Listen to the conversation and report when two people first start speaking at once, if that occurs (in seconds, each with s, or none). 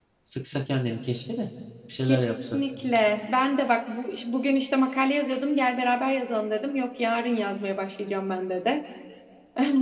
none